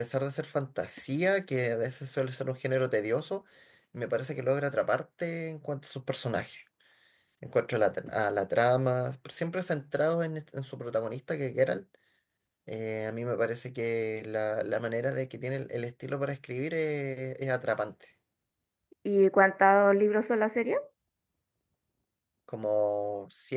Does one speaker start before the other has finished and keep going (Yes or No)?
No